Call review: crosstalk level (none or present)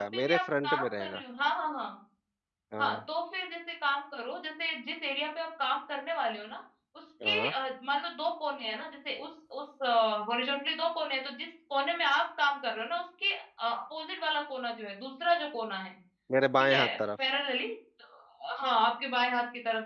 present